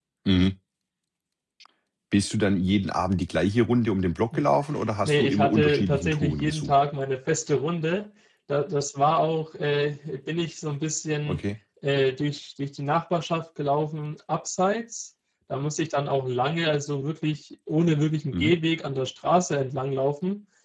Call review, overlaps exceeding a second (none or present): present